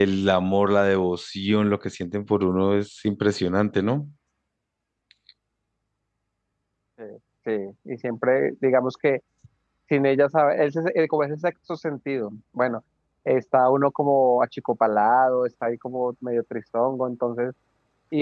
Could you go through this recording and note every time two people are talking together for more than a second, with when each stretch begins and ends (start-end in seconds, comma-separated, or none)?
none